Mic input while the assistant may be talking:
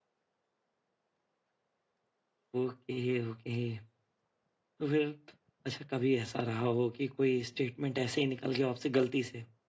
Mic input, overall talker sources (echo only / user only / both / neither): user only